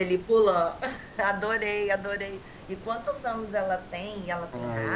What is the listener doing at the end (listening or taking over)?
taking over